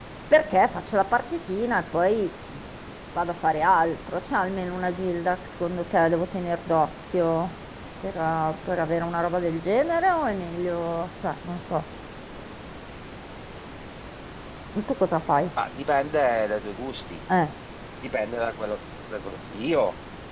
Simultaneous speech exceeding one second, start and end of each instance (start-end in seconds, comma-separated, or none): none